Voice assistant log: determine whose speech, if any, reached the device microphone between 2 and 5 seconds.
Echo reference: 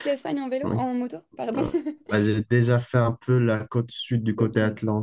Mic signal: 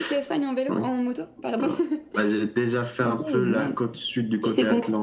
both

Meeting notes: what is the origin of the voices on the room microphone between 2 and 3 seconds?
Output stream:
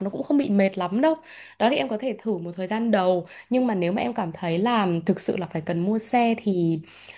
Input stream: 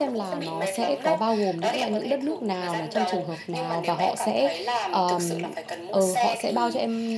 both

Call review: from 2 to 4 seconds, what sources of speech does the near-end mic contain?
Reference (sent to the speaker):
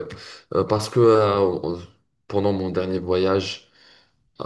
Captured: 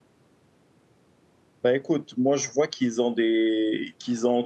user only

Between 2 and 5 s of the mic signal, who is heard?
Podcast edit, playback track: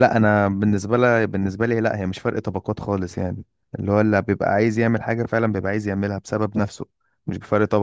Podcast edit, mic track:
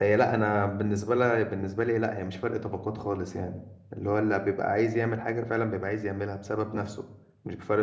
echo only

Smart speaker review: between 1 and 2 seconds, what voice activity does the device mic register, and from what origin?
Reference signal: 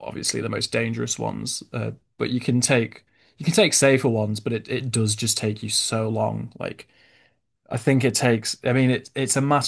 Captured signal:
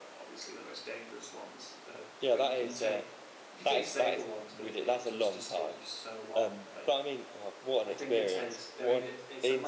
echo only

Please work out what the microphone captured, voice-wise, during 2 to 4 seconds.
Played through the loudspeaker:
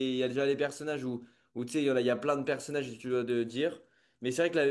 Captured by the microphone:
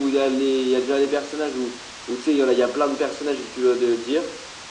echo only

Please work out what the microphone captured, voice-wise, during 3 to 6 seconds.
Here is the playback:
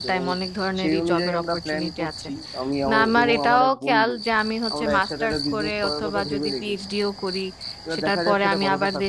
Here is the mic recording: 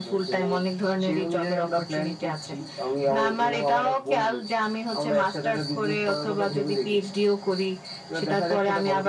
echo only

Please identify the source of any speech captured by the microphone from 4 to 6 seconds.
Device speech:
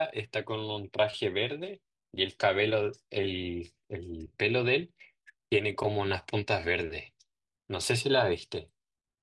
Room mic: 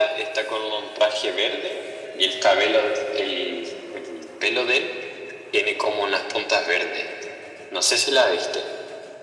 echo only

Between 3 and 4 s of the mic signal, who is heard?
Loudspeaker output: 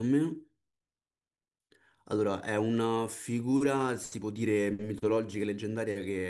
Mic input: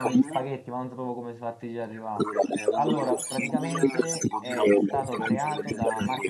both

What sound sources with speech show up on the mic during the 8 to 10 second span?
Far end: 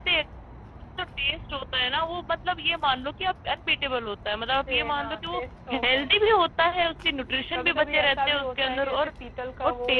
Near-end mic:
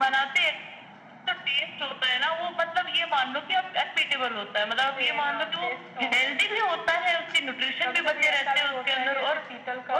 echo only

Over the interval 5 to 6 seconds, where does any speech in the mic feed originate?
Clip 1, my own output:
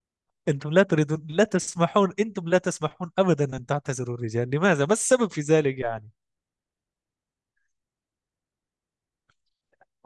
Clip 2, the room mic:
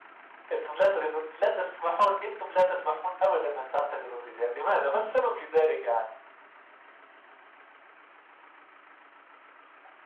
echo only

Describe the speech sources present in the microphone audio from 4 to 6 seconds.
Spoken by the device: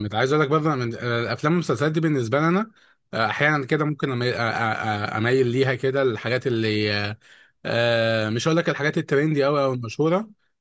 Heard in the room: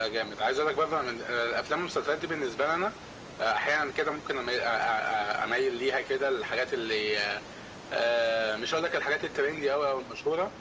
echo only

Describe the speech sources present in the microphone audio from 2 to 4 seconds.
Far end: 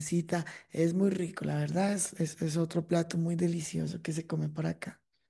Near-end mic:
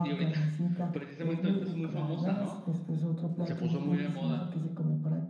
both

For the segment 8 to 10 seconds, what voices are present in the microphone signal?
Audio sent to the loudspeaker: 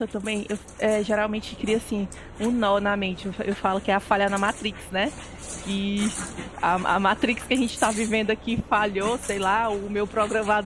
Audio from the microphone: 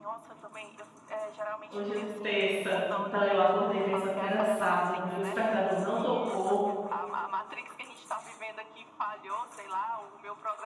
echo only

